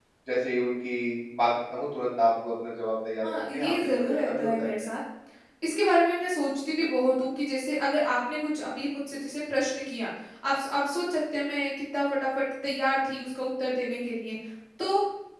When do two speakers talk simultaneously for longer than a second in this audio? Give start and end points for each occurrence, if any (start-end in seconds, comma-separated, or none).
3.2-4.7